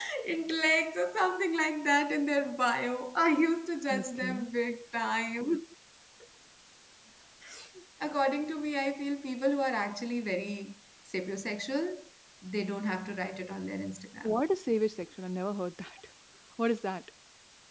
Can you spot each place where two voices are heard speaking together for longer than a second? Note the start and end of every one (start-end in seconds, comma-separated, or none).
none